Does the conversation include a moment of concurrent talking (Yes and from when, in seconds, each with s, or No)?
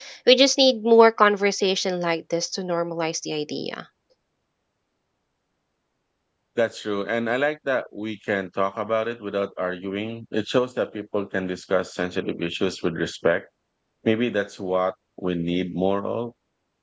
No